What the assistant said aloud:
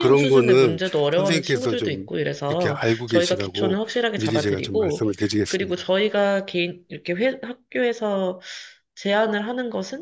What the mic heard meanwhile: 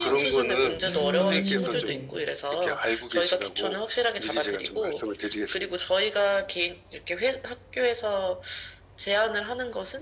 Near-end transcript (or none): 음, 네네.